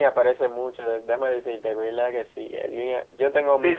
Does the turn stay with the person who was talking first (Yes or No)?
No